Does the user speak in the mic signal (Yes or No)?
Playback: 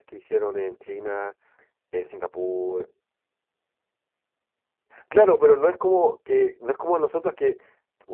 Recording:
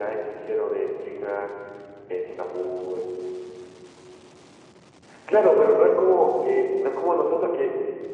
No